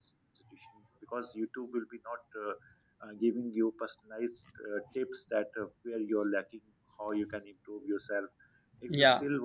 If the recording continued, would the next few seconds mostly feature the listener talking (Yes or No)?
No